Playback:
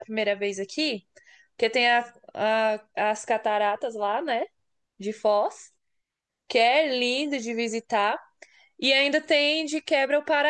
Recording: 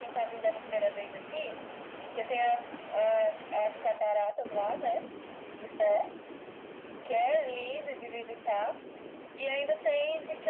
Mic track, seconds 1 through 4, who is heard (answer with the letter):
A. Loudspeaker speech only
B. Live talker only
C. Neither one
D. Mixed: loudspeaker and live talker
A